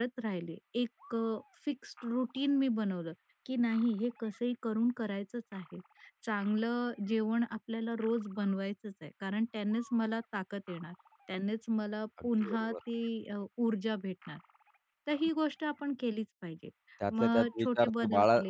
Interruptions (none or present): present